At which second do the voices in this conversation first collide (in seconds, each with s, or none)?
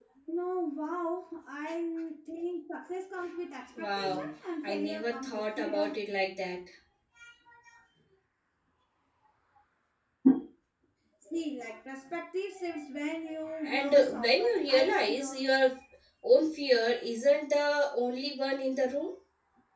3.8 s